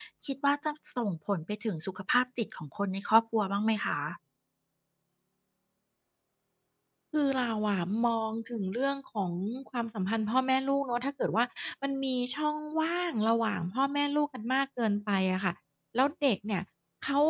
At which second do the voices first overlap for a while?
none

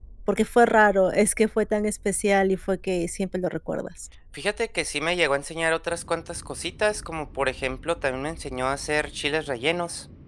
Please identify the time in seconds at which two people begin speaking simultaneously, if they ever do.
none

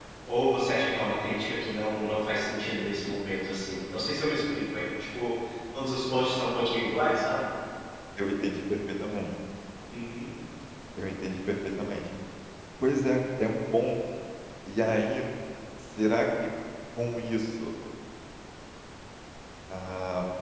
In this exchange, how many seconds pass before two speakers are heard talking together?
none

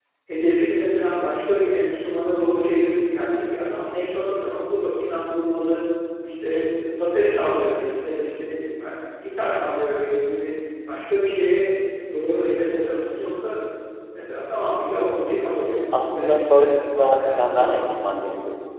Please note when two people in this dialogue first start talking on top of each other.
15.9 s

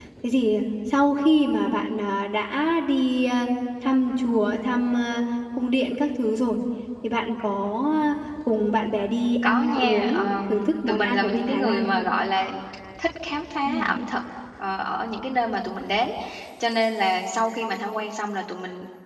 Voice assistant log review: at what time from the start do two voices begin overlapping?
9.4 s

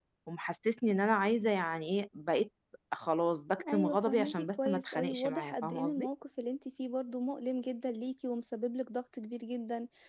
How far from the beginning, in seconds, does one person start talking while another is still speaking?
3.7 s

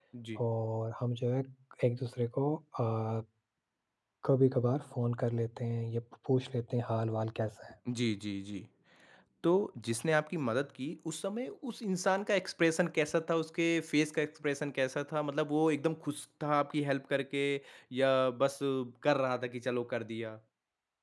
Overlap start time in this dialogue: none

